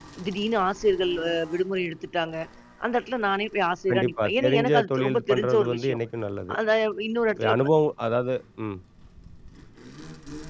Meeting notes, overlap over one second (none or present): present